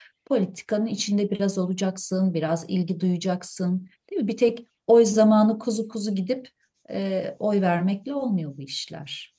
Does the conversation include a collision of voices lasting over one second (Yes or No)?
No